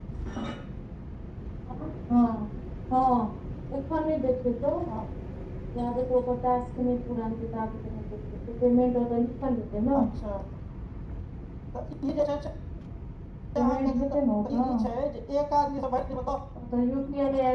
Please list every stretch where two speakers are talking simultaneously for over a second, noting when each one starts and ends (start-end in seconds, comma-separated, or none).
13.6-14.8